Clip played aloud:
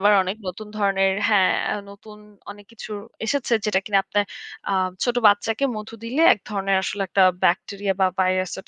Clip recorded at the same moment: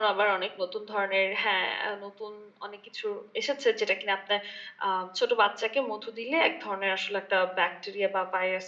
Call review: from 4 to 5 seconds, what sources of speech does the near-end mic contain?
echo only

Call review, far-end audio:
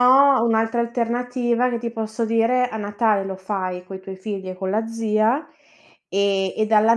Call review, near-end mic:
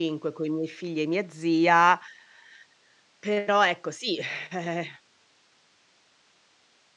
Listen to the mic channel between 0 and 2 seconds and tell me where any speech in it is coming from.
user only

